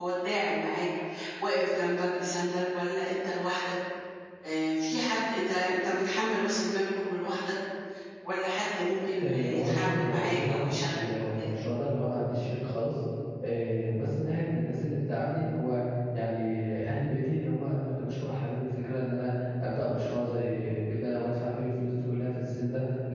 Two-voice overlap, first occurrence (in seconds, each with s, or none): 9.2 s